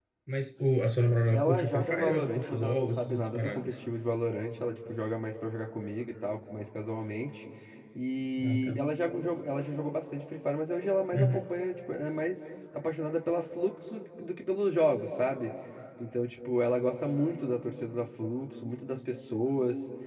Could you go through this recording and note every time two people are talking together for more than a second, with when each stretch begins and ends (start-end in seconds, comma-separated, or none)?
1.3-3.7